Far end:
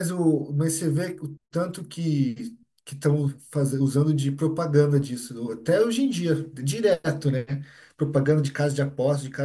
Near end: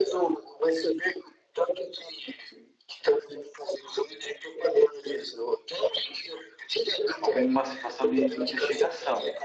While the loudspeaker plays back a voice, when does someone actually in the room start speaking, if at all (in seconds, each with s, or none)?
7.2 s